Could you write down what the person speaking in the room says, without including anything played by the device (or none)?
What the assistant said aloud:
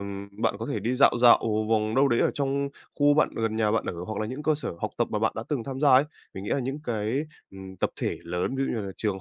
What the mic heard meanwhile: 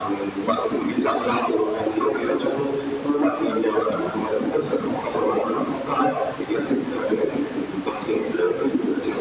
none